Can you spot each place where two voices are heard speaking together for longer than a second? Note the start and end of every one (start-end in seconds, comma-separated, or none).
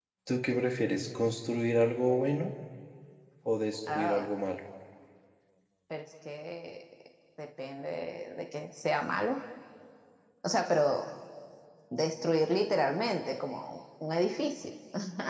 none